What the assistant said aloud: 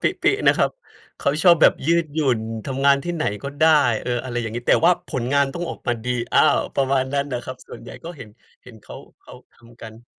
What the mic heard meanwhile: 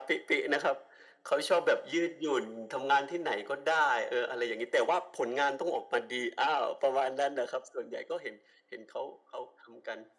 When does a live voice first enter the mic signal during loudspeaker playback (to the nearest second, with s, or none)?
none